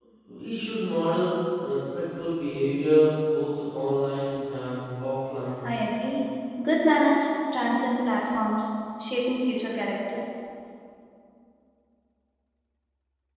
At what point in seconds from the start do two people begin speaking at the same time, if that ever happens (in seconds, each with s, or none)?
none